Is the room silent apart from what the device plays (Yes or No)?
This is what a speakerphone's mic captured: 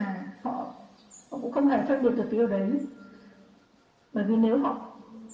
Yes